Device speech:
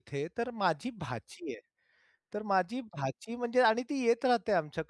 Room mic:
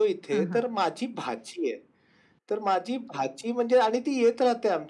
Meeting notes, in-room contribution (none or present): present